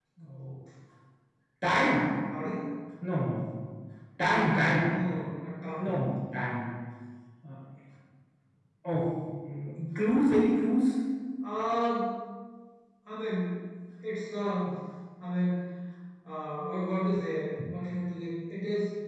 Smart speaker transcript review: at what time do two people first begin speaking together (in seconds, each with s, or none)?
none